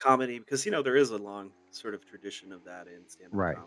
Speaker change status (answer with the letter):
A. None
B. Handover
B